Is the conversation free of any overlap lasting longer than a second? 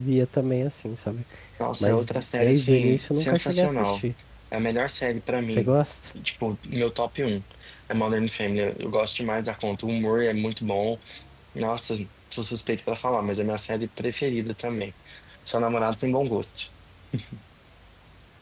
No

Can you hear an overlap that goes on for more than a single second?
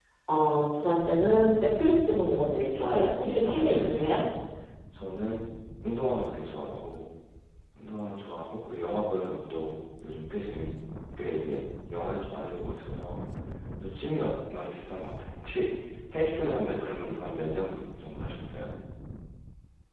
Yes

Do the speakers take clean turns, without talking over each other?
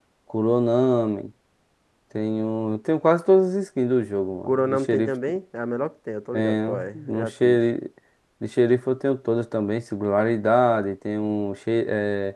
No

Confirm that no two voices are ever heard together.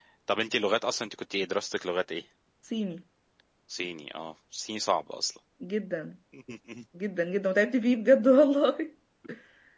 Yes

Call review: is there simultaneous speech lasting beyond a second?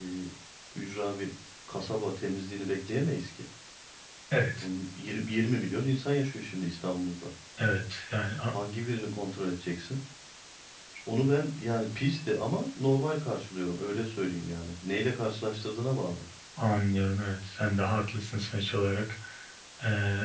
No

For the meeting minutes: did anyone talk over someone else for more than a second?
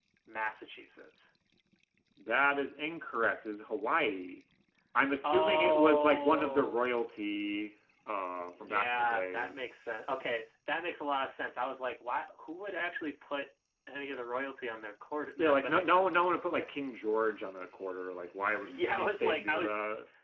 Yes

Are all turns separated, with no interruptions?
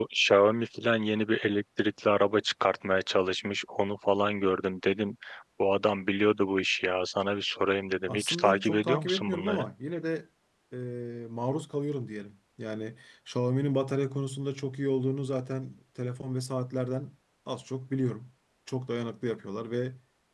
No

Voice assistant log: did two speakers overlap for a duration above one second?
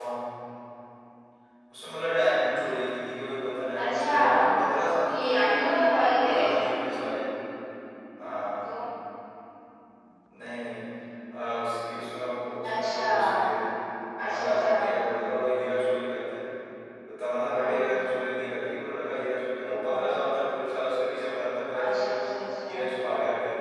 Yes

